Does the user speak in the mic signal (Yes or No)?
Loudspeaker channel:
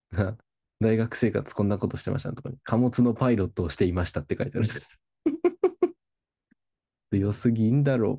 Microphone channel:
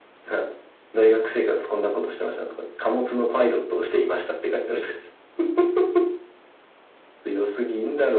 No